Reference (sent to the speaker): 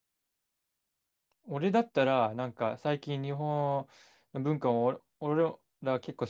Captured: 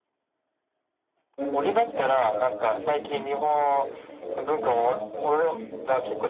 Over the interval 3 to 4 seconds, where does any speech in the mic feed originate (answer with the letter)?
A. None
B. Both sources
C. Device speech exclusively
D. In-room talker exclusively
B